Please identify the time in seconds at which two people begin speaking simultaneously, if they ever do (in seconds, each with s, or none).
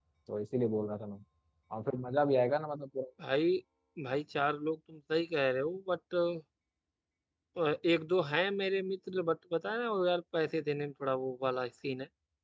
none